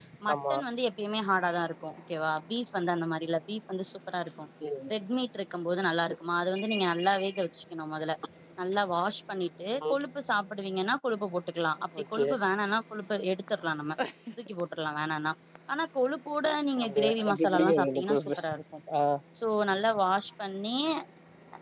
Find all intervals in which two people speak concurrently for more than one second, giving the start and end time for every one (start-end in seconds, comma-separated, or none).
16.8-18.3